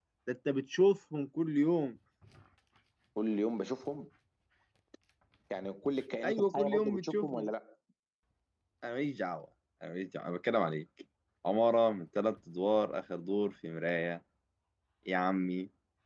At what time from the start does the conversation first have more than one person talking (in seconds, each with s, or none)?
6.2 s